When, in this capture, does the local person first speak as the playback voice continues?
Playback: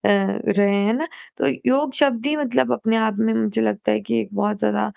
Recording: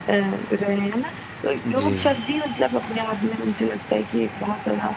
2 s

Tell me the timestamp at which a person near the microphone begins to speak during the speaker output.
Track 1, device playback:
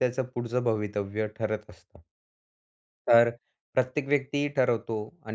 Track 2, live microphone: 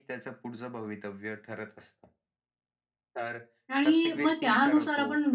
4 s

